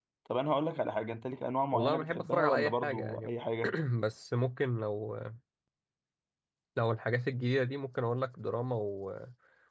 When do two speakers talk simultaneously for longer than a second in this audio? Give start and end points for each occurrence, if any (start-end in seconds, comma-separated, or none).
1.7-3.3